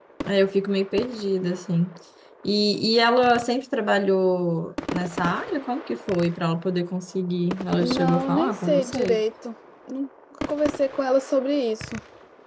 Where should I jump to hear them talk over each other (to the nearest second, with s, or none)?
8 s